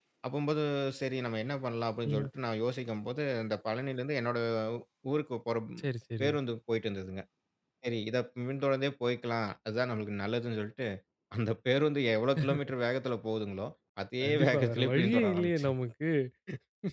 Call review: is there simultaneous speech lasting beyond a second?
Yes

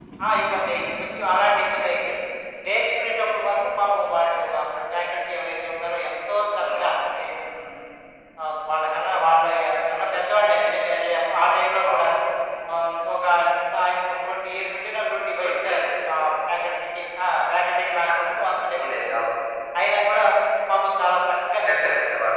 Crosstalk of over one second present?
No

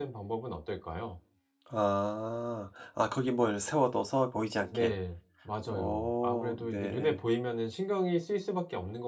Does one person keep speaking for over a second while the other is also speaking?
Yes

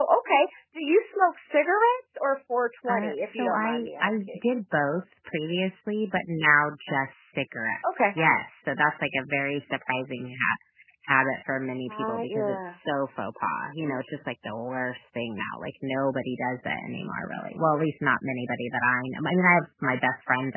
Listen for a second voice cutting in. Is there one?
Yes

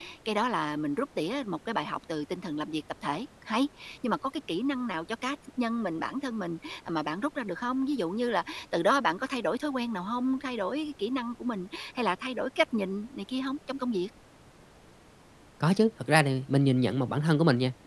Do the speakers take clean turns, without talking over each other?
Yes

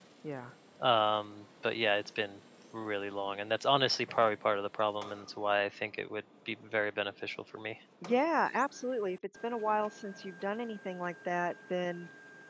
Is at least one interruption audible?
No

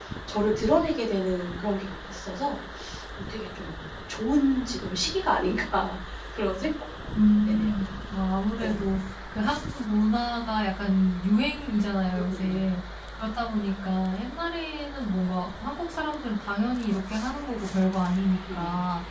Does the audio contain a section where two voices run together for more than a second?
No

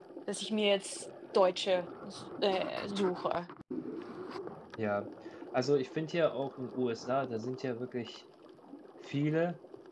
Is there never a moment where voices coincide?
Yes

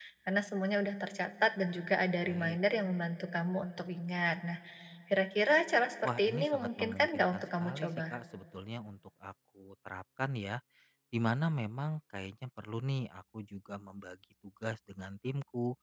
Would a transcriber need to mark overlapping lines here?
Yes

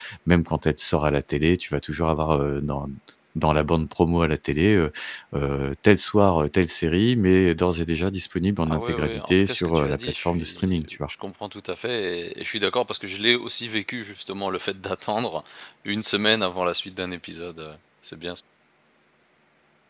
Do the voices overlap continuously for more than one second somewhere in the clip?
Yes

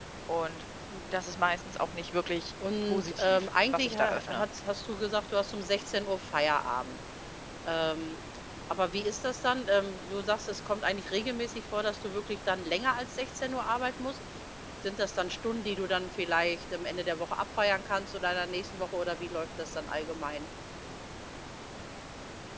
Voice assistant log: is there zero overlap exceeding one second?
No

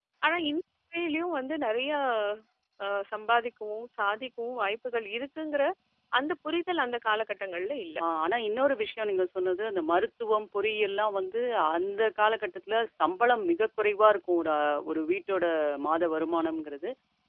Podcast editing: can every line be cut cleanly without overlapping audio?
Yes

